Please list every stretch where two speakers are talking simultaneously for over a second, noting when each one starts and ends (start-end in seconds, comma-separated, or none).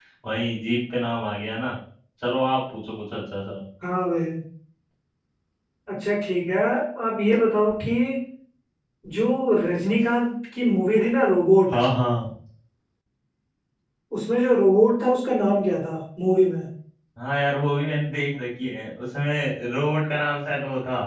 none